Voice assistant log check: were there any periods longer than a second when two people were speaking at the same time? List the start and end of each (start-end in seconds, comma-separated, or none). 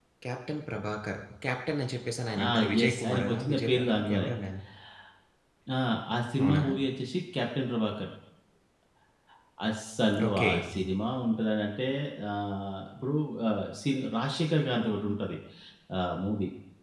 2.5-4.3